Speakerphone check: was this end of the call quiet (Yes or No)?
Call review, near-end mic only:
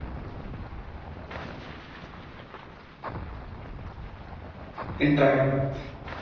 No